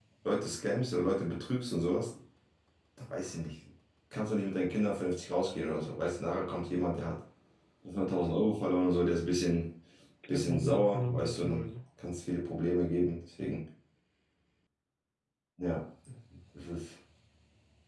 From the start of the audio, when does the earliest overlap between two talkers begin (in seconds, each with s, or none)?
10.3 s